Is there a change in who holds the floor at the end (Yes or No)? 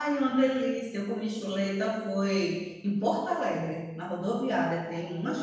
Yes